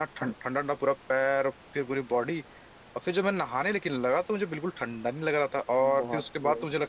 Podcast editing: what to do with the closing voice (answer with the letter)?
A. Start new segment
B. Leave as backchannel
B